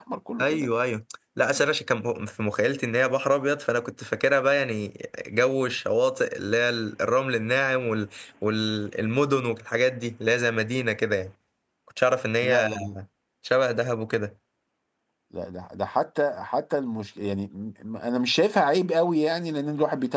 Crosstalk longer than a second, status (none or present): none